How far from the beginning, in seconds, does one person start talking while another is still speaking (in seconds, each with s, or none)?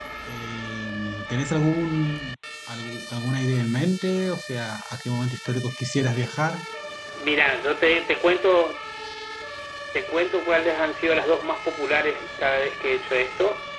none